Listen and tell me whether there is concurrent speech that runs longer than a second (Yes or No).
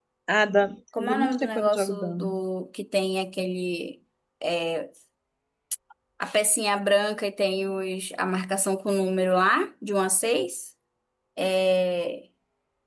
Yes